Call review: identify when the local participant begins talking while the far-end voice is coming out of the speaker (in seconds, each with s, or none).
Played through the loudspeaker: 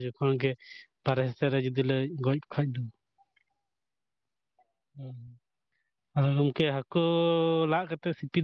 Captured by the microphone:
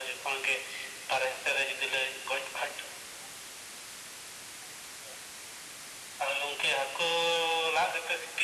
none